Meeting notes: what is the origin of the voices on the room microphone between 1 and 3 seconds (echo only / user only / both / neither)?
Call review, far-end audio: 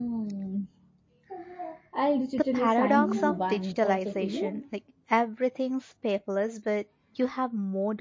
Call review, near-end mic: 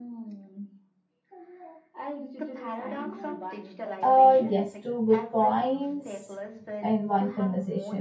echo only